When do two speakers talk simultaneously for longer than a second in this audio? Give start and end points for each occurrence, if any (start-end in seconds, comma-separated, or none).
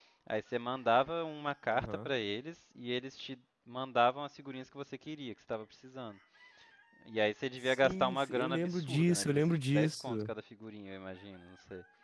7.7-10.3